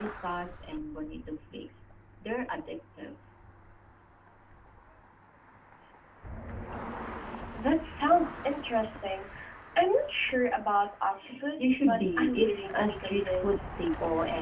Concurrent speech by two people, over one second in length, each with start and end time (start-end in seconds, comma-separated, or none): 11.6-13.6